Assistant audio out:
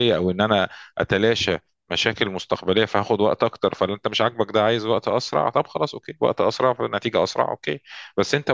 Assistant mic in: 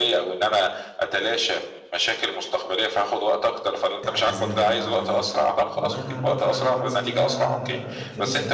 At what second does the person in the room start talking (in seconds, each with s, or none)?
4.0 s